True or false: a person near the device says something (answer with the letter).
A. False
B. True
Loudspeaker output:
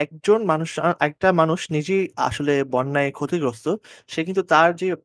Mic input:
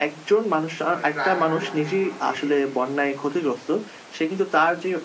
B